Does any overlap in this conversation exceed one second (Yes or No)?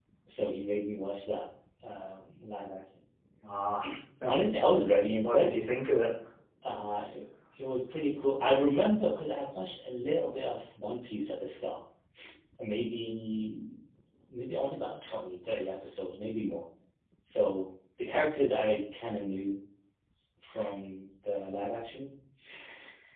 No